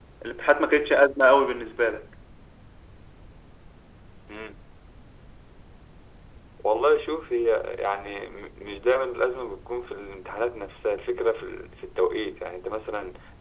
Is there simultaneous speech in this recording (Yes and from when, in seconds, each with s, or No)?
No